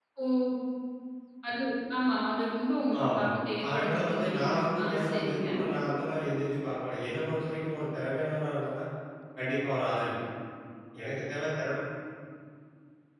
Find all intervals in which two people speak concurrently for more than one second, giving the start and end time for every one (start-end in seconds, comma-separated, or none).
3.7-5.5